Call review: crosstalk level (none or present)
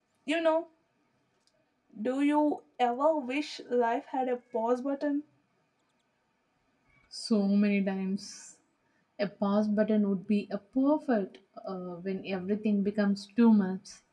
none